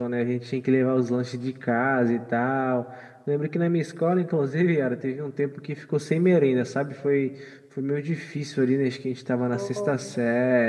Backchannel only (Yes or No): Yes